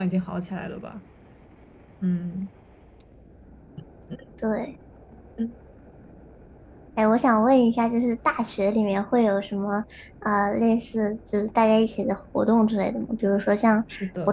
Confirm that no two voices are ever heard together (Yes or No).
Yes